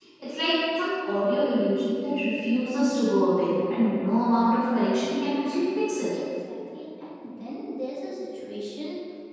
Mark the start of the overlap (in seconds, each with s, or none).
none